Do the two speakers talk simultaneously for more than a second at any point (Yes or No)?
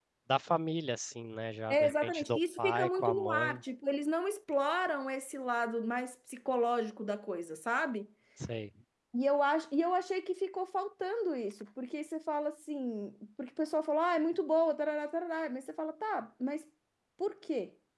Yes